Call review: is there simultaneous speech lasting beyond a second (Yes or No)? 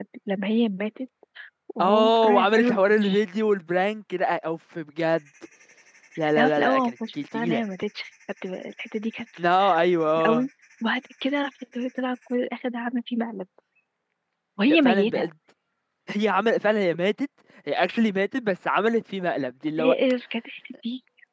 Yes